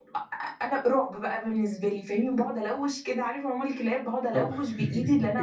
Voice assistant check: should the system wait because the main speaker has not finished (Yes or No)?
Yes